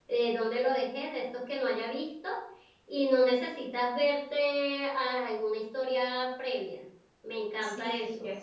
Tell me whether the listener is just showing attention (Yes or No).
No